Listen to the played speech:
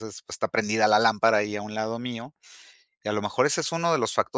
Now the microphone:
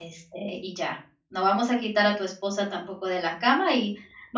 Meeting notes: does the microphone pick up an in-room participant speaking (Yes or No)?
Yes